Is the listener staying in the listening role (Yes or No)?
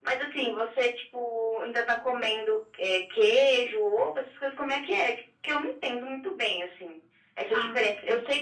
Yes